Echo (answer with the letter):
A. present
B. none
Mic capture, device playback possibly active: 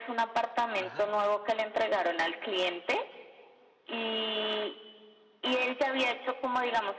A